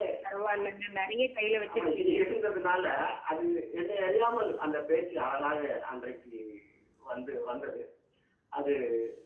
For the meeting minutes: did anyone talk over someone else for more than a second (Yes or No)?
No